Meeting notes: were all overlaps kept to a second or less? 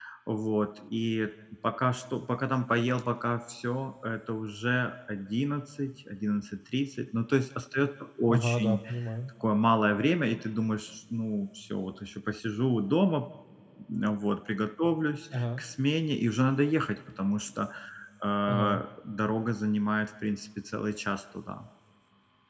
Yes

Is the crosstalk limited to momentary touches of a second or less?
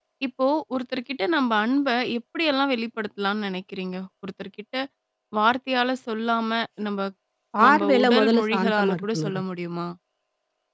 No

